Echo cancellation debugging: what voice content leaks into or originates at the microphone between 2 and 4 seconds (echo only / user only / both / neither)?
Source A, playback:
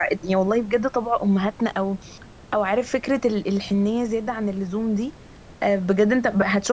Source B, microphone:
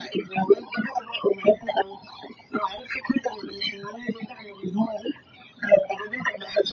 echo only